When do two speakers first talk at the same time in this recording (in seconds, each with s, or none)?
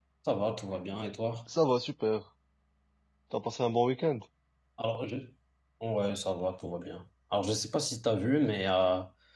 none